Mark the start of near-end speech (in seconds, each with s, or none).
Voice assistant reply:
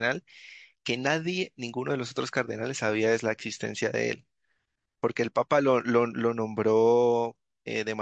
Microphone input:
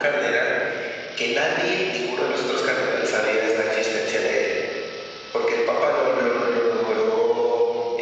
none